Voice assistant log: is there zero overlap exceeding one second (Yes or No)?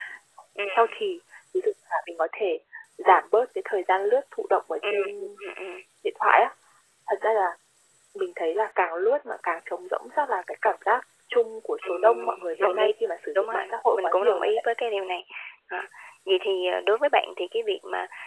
No